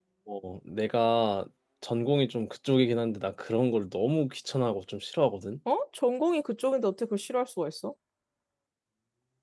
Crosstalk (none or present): none